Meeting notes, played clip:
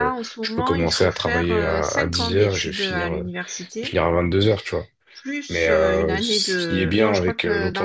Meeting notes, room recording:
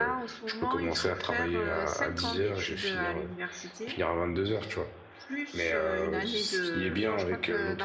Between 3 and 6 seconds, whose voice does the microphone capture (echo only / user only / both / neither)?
echo only